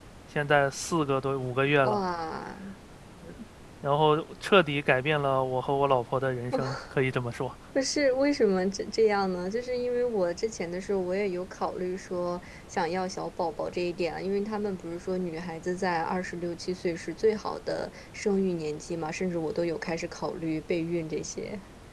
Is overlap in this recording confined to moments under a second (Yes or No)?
Yes